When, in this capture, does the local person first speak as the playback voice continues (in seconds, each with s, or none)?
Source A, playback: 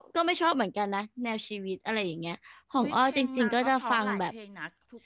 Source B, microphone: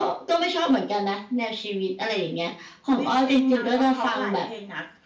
none